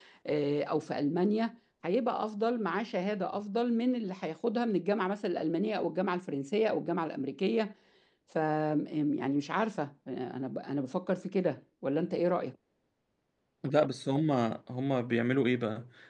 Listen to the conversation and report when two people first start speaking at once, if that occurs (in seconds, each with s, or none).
none